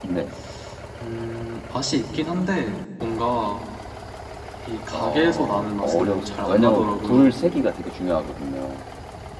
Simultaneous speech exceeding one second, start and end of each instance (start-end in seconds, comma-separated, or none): 4.9-7.4